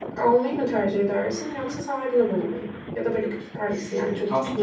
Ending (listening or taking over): taking over